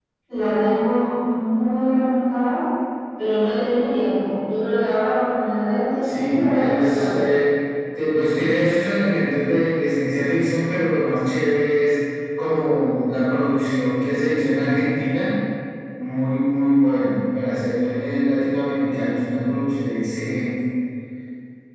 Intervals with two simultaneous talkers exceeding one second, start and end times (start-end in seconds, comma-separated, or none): 6.0-7.2